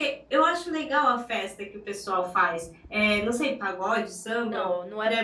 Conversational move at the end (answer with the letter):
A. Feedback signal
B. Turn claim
B